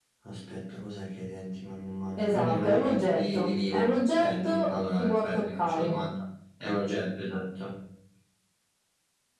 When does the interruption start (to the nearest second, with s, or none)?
2 s